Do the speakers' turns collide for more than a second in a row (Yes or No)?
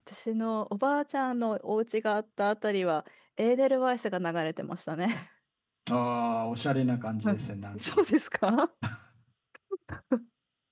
No